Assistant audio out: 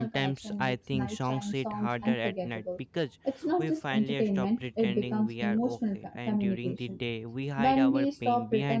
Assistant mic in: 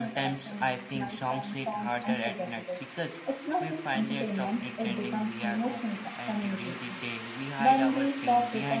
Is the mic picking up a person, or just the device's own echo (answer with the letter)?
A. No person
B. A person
A